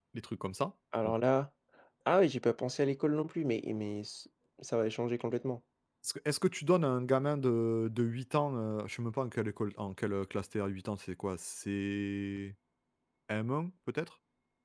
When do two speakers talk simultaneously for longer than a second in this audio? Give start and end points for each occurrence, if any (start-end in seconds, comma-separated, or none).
none